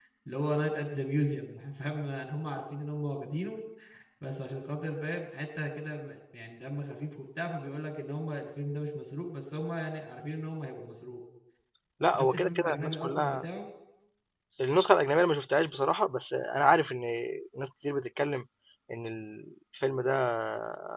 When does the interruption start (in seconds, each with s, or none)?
12.1 s